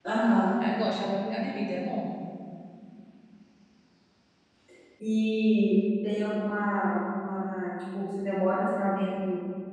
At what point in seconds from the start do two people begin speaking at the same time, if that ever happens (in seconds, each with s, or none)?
none